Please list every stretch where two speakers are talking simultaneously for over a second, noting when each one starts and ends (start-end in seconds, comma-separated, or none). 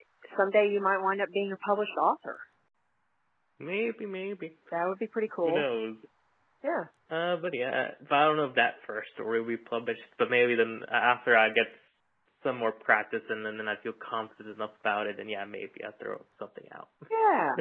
none